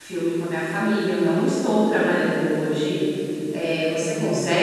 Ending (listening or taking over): listening